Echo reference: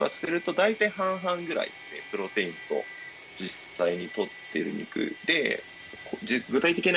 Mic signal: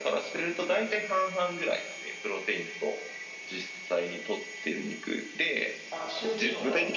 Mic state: both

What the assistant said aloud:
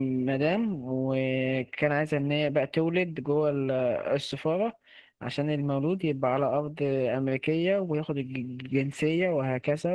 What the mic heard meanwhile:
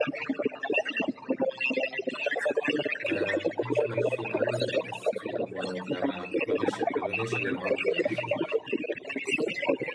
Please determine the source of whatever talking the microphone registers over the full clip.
both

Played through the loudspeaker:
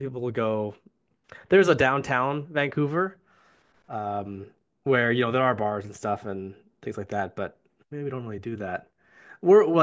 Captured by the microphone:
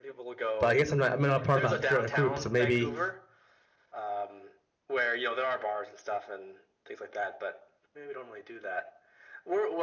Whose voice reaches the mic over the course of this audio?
both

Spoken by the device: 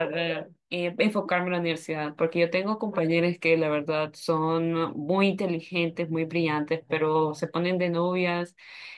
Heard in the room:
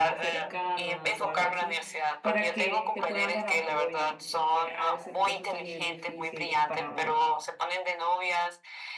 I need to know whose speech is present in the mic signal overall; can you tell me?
both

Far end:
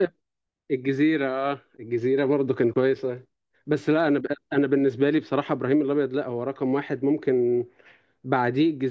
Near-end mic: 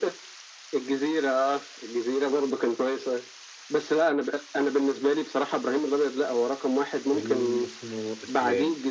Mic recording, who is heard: both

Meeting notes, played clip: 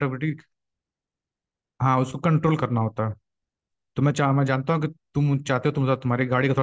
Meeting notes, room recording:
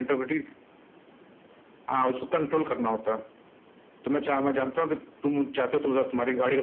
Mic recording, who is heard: echo only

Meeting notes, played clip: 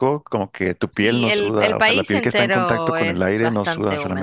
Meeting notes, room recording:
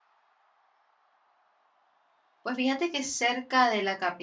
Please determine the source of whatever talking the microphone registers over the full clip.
user only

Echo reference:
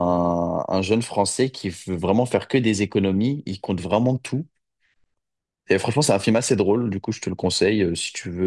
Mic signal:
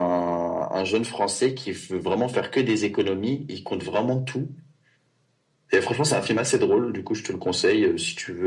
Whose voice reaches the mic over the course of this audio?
echo only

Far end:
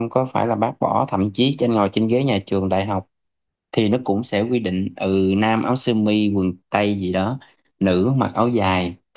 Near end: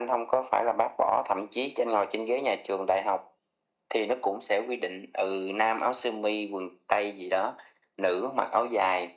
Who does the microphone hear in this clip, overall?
echo only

